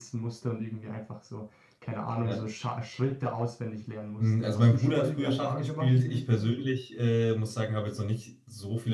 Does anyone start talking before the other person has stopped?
Yes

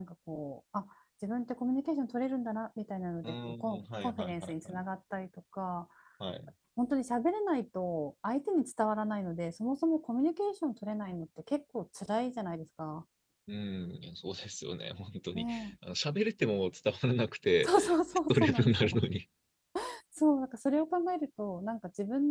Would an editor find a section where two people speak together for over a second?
Yes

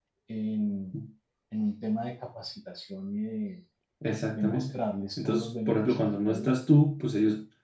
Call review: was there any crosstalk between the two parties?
Yes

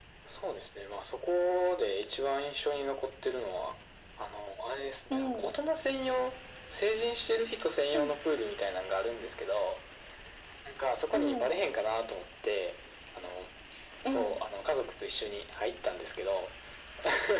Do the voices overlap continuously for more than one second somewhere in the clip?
No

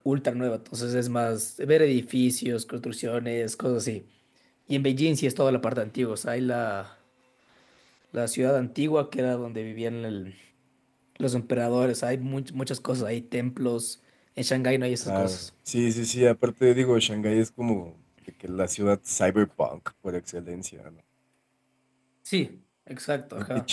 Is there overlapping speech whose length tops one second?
No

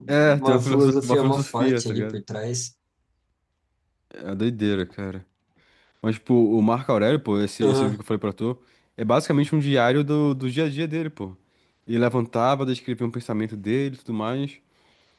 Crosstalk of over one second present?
Yes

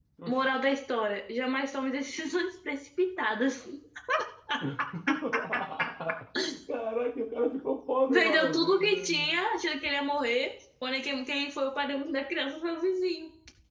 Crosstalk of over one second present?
Yes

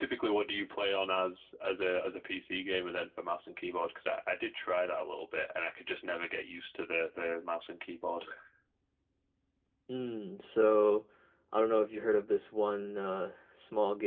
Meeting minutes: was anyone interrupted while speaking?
No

